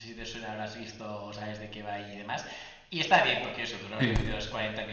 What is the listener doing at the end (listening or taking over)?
listening